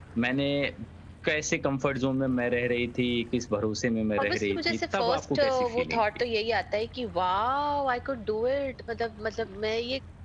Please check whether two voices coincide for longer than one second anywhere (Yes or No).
Yes